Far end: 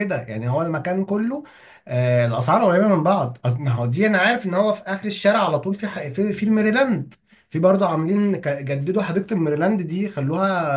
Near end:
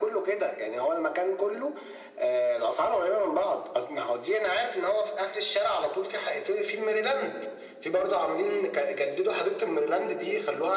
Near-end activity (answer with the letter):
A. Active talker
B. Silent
B